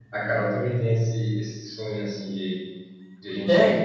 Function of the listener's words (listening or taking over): listening